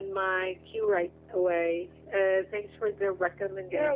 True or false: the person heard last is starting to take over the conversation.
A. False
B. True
B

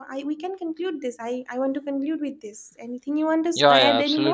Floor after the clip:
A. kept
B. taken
B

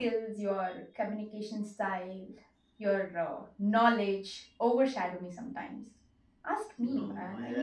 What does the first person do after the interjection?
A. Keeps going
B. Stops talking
B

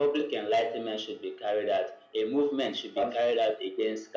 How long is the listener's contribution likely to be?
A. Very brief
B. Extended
A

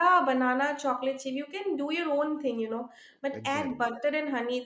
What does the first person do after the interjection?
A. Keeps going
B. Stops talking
A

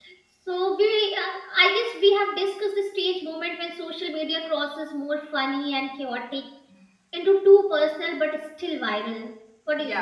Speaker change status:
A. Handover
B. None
A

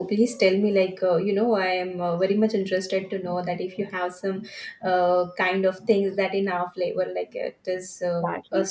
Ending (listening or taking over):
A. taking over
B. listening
A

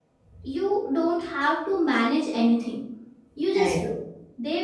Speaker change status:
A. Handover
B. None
B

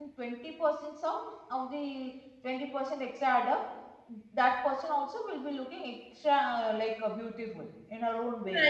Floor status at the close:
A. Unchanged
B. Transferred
B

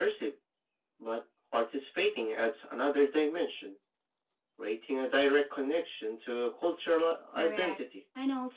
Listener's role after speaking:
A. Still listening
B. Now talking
B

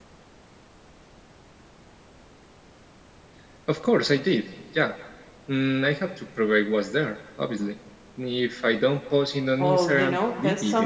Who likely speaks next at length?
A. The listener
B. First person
A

